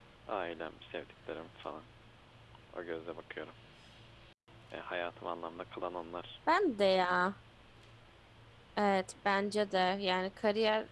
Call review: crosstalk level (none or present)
none